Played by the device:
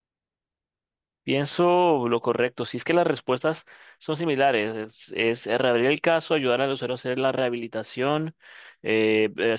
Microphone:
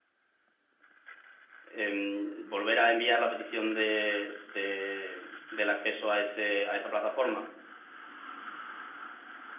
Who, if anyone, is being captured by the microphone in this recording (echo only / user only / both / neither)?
user only